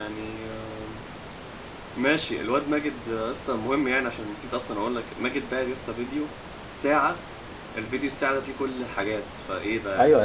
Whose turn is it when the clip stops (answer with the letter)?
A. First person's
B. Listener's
B